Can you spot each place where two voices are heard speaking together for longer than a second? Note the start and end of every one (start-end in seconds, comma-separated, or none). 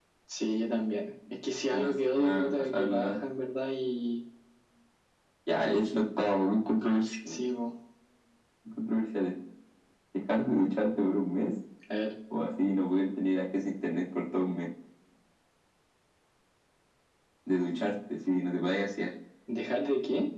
1.7-3.2